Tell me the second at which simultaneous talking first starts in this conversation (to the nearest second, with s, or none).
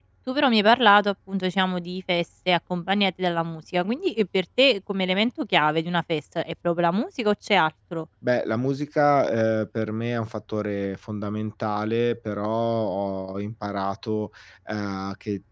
none